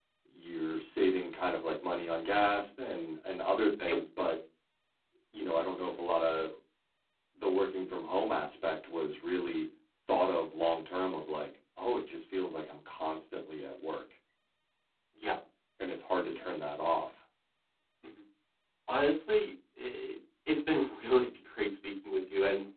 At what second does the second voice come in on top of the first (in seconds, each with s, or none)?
none